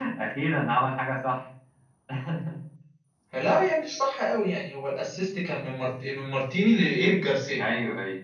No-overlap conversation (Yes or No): Yes